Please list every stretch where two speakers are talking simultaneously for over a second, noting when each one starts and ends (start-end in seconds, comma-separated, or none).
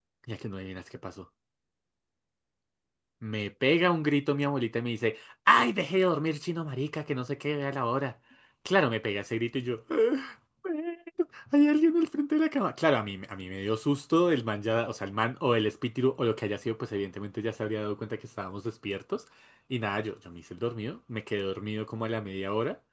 none